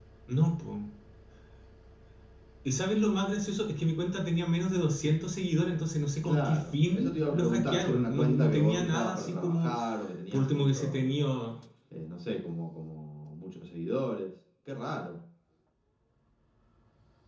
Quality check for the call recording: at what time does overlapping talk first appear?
6.2 s

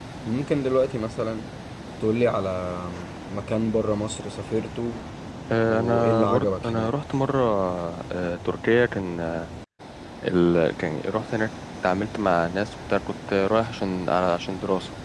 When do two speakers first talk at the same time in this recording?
5.7 s

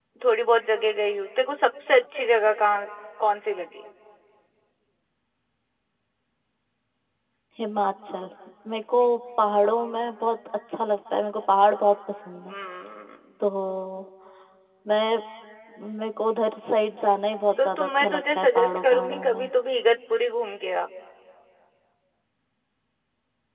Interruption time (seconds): 17.6 s

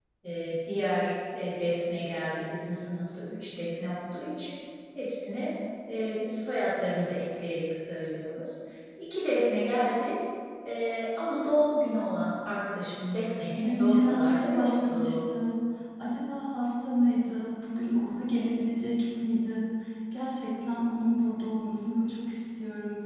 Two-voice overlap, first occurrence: 13.6 s

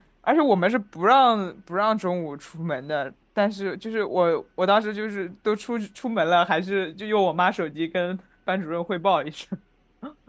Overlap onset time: none

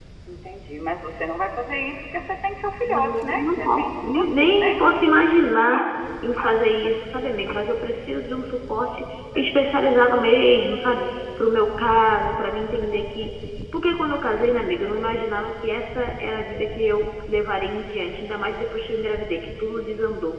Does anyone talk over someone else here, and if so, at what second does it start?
2.8 s

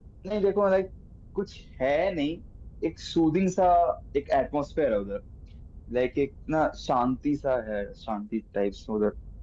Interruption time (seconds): none

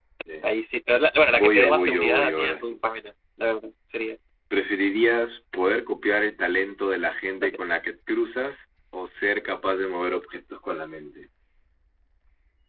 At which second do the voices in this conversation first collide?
1.3 s

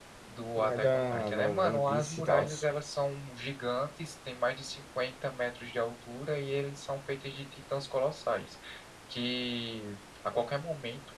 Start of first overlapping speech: 0.6 s

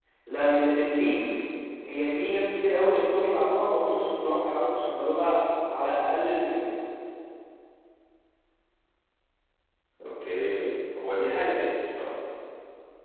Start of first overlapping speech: none

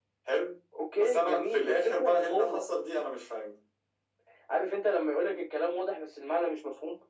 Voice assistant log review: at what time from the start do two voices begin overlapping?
1.0 s

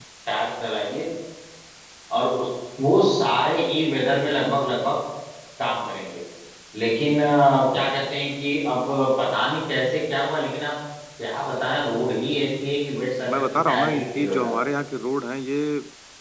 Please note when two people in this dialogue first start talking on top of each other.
13.3 s

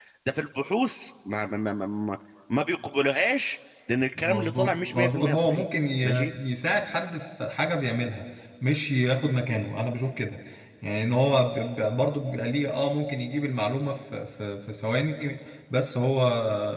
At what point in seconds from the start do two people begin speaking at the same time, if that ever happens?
4.2 s

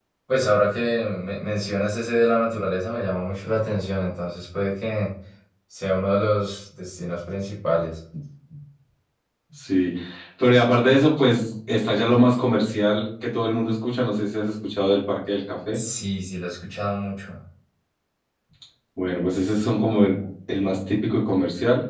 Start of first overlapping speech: none

